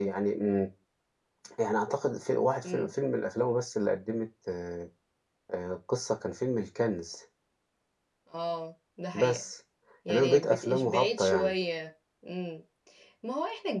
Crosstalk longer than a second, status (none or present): present